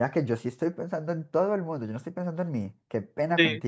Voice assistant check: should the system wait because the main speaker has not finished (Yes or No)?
No